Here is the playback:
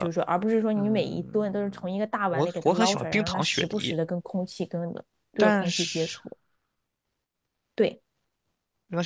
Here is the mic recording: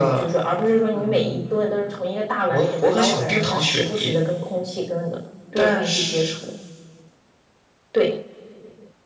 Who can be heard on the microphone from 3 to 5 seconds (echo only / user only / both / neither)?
echo only